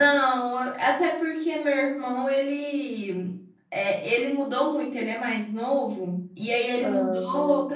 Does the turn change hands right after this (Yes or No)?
No